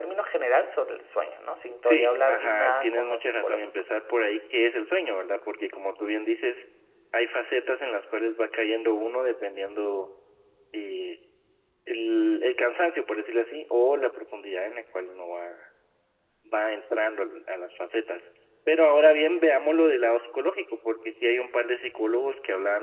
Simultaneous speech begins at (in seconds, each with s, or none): 1.8 s